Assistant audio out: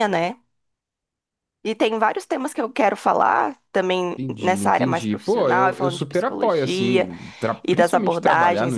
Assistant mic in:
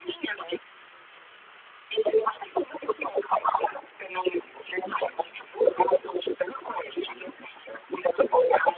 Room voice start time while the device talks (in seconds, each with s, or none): none